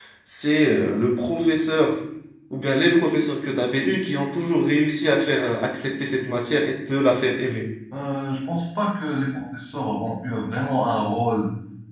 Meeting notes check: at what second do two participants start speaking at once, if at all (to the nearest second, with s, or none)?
none